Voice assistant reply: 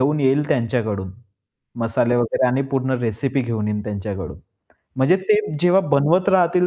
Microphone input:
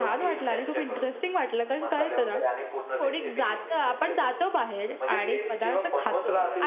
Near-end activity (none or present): present